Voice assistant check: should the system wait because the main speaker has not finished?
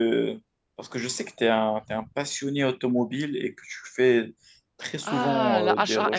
No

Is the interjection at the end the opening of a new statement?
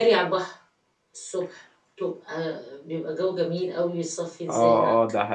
Yes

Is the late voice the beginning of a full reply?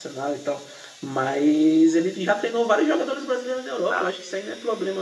No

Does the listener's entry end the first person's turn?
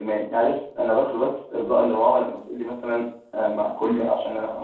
No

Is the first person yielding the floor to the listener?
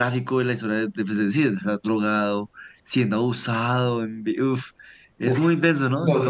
Yes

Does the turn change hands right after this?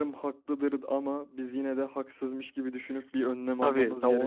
Yes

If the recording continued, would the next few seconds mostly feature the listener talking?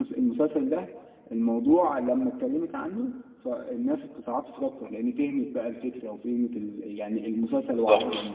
No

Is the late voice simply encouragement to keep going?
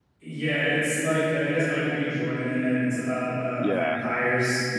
No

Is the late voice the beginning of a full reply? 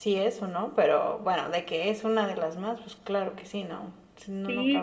Yes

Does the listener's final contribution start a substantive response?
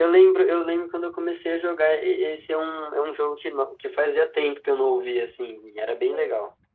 Yes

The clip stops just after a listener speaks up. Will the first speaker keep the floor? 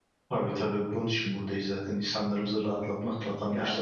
No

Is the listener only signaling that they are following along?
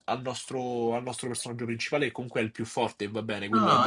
No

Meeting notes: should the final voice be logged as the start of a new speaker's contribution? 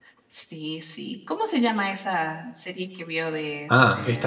Yes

